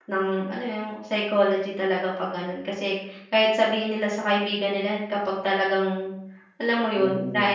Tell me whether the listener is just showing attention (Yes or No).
No